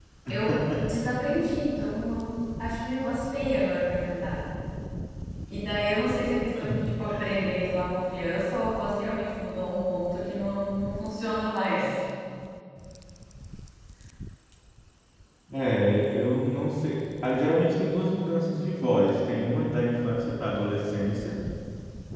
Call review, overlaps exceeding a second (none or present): none